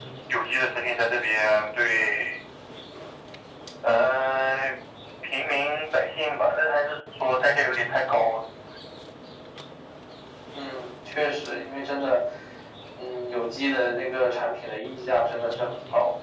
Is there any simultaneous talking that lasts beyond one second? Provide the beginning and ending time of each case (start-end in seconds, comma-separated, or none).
none